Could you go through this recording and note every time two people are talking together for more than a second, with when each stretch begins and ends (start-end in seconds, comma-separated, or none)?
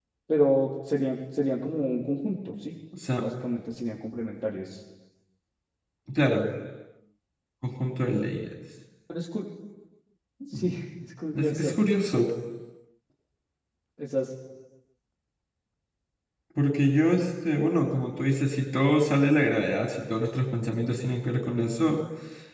none